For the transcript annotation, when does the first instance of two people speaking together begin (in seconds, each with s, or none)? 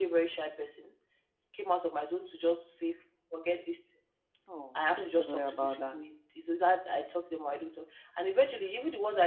4.8 s